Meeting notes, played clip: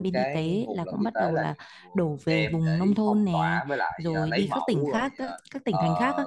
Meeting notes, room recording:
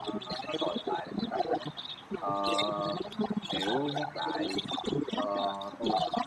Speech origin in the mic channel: both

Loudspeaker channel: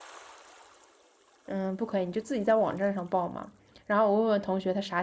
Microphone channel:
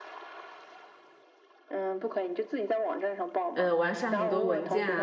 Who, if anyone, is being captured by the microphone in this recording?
both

